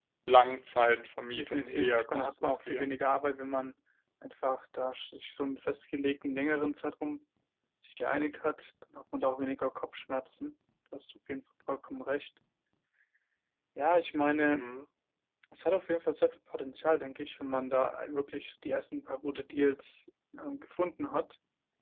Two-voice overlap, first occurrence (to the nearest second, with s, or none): 1 s